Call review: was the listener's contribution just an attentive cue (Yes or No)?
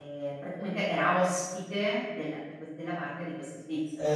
No